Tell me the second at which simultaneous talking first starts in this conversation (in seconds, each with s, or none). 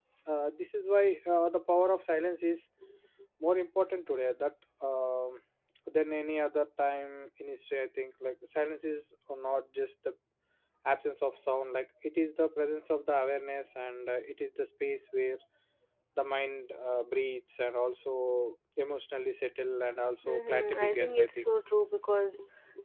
20.2 s